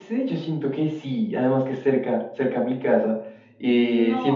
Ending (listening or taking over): listening